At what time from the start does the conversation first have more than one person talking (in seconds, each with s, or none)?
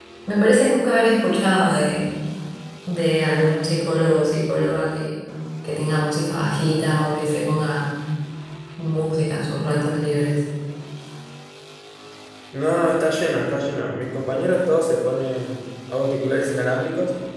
none